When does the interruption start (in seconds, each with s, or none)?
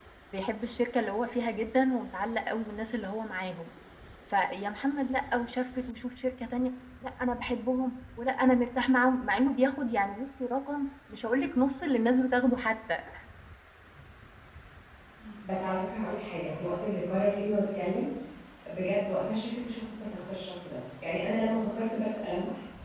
none